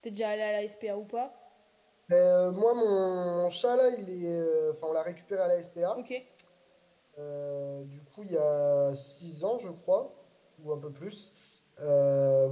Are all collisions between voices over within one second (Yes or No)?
Yes